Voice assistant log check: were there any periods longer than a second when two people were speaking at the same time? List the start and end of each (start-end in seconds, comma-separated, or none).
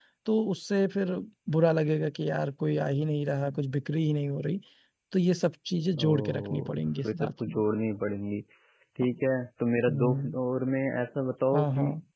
6.0-7.6